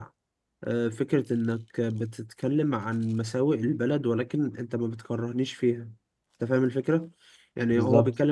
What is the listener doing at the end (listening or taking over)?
listening